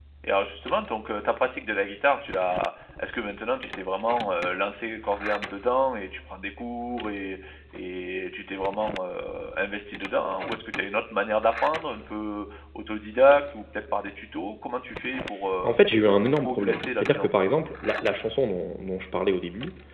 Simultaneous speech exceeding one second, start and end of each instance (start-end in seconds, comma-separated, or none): 16.1-17.3